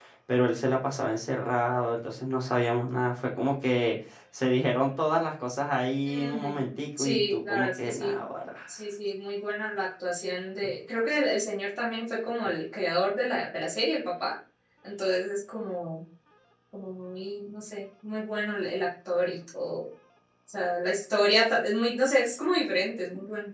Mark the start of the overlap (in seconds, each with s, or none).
6.1 s